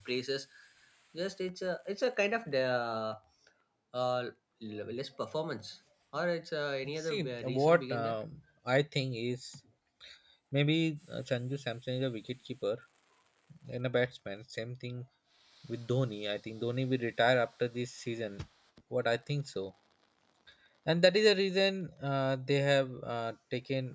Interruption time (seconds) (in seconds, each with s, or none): 6.8 s